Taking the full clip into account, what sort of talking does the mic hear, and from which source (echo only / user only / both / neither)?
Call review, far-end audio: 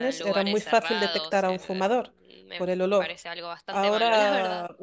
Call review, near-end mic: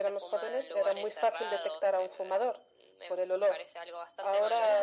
echo only